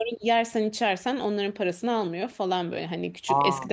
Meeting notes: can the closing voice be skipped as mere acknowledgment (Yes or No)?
Yes